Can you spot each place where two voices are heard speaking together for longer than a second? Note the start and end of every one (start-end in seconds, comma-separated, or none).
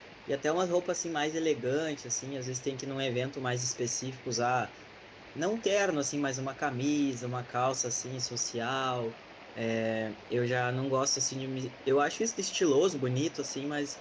none